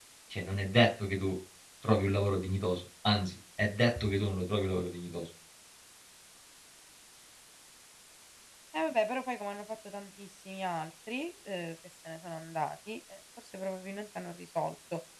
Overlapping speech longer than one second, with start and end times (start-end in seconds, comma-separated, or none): none